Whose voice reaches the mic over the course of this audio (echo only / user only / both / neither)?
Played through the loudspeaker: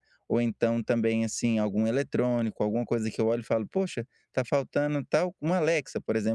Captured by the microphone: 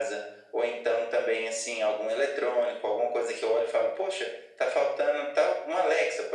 echo only